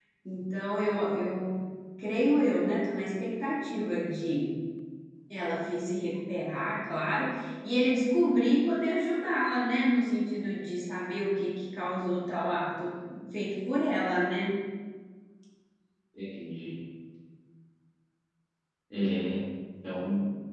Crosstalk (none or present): none